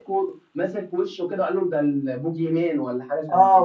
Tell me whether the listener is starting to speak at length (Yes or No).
Yes